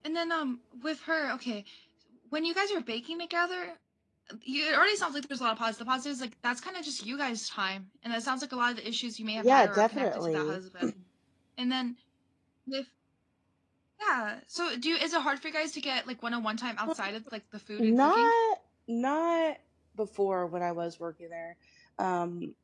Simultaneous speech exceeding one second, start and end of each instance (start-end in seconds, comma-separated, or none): 9.4-10.6